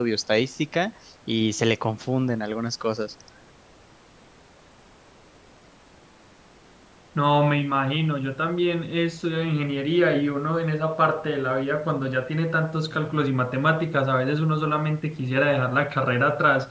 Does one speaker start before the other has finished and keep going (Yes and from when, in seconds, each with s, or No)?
No